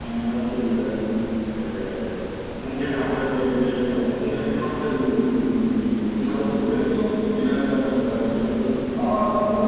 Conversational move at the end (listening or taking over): taking over